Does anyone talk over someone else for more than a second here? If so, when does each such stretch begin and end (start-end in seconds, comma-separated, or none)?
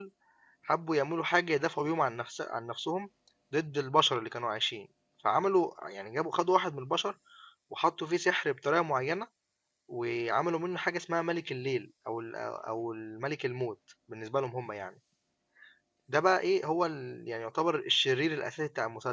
none